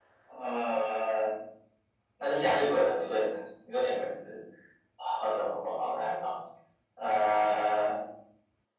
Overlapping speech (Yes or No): No